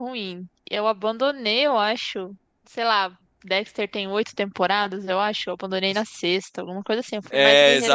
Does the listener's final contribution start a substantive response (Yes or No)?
Yes